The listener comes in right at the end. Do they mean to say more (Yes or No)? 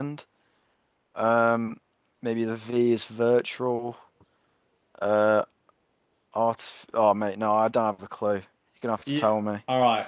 Yes